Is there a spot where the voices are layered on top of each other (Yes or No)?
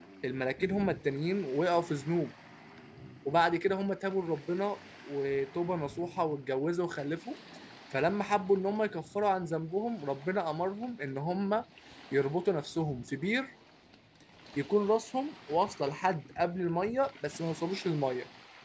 No